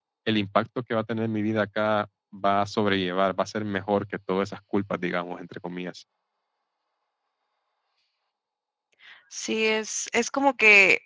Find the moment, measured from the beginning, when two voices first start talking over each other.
none

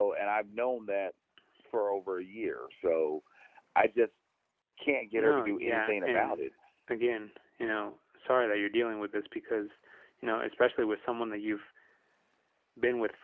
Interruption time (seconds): 5 s

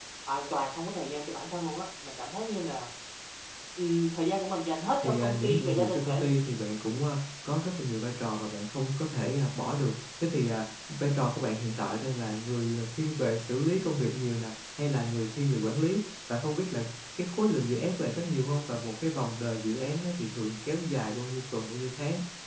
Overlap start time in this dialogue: 5 s

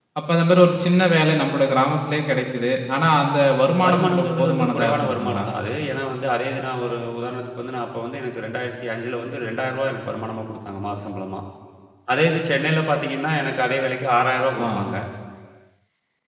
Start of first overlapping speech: 4 s

